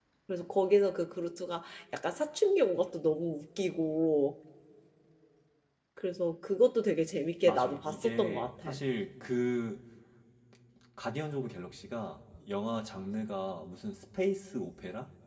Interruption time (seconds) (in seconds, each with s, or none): 7.4 s